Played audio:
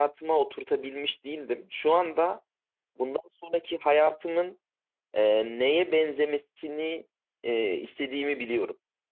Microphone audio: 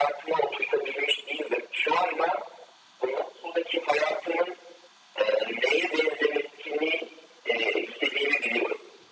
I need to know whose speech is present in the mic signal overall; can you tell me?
echo only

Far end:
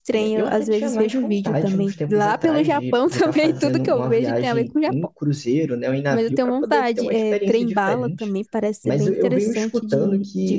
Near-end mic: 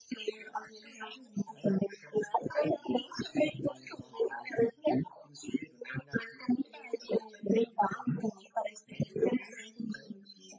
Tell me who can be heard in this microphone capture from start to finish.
echo only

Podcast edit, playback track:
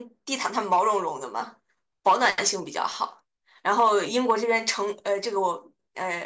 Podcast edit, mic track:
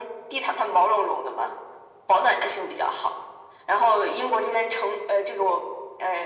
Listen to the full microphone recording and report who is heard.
echo only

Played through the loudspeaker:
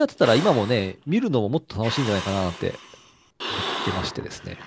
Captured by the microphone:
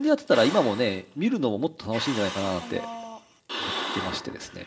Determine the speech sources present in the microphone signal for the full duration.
both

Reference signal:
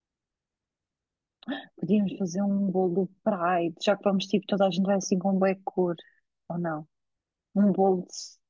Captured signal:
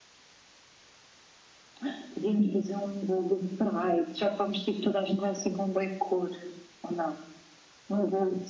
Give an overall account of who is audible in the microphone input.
echo only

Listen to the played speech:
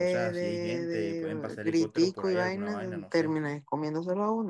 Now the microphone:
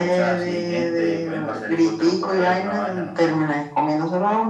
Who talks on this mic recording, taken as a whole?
echo only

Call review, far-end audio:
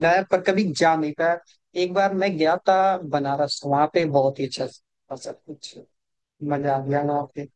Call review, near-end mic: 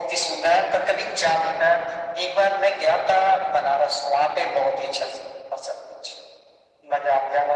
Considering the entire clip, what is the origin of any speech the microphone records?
echo only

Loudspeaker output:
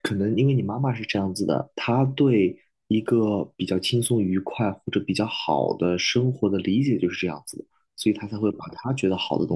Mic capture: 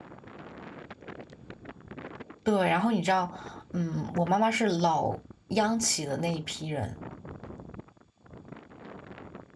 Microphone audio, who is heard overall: user only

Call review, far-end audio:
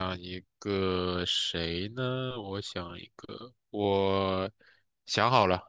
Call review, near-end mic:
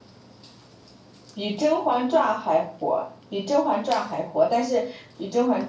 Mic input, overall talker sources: user only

